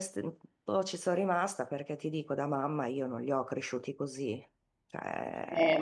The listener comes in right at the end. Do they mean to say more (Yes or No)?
Yes